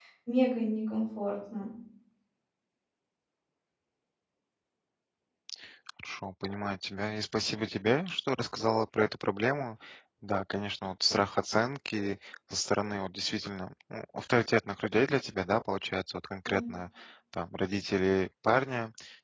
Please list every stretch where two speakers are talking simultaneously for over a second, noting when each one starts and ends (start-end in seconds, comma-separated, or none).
none